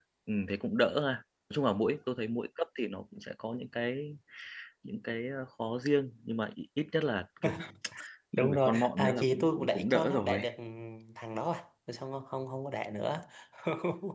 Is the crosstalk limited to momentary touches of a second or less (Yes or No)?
No